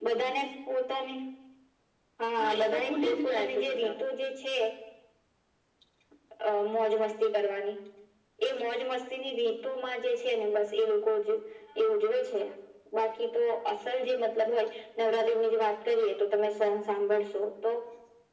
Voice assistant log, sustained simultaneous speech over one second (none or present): present